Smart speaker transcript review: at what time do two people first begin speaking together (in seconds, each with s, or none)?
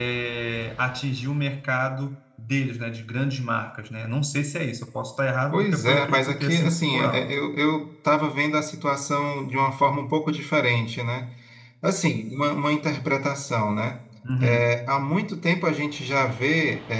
5.5 s